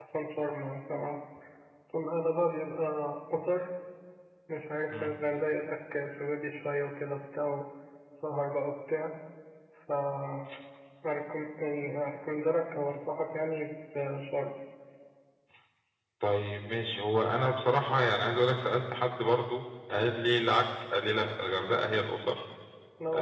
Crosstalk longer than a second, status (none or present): none